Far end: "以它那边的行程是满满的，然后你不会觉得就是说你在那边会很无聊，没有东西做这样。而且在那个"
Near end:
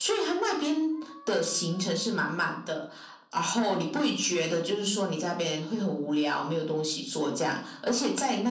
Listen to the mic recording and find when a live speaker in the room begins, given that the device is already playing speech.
none

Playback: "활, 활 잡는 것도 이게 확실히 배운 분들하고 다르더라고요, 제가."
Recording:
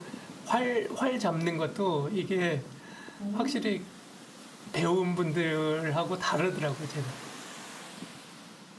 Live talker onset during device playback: 3.2 s

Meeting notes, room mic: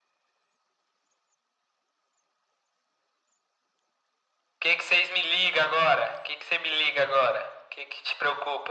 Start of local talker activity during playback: none

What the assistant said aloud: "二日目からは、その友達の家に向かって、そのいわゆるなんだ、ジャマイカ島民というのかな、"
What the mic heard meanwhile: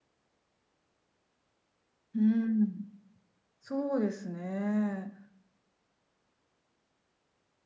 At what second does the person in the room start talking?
2.1 s

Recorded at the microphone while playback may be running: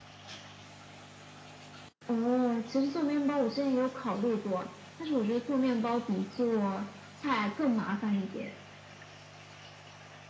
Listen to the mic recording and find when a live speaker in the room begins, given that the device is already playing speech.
none

